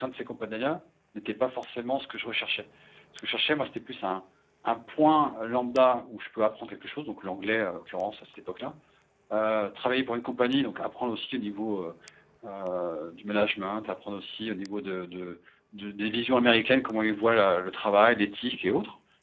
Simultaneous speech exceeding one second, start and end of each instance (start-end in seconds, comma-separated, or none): none